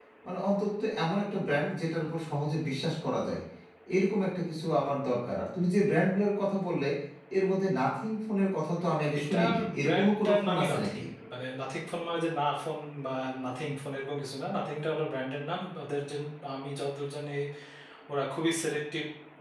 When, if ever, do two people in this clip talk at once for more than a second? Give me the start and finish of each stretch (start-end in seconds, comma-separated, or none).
9.2-11.0